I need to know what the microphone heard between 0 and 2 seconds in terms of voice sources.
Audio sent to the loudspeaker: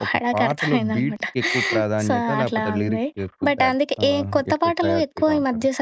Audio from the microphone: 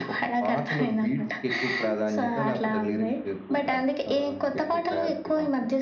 echo only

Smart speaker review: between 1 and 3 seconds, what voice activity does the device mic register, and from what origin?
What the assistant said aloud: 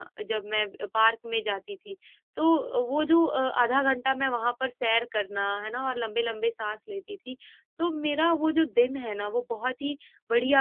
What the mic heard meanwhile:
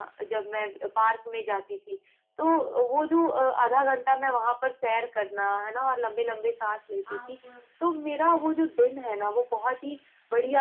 echo only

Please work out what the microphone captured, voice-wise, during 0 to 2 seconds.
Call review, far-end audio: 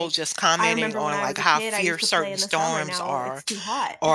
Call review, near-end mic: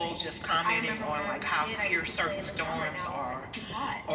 echo only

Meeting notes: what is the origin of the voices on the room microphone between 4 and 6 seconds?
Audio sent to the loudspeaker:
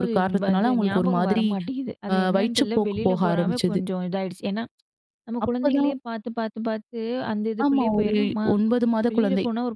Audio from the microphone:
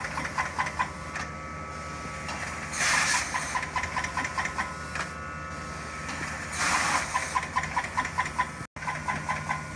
neither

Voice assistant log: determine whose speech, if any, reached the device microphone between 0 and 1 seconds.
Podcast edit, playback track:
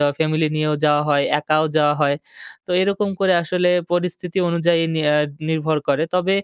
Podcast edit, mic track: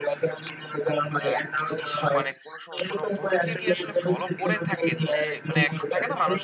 echo only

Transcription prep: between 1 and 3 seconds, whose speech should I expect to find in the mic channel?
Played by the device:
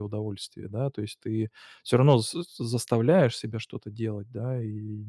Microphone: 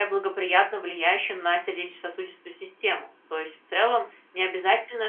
user only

